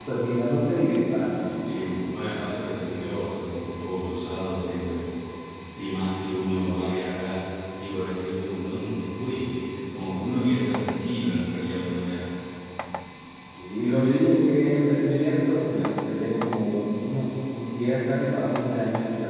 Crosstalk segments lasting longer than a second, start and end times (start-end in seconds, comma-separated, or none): none